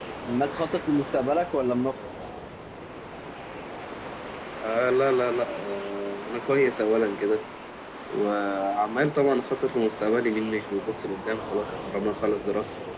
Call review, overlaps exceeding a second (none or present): none